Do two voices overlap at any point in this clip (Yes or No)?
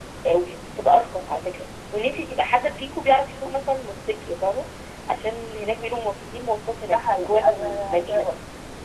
Yes